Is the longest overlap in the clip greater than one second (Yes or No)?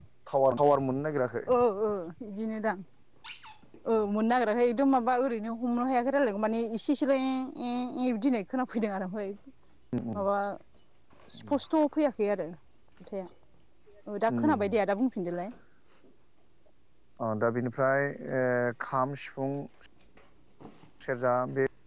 No